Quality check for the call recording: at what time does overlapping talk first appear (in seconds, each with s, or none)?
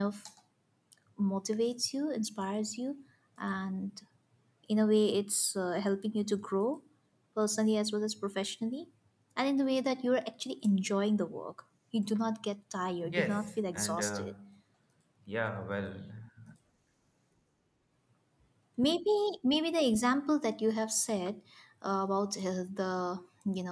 13.0 s